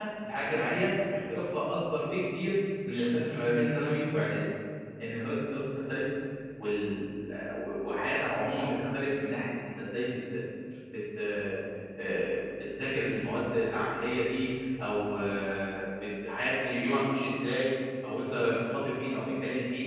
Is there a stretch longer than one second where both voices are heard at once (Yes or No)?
No